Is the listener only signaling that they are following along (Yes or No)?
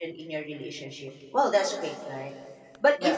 Yes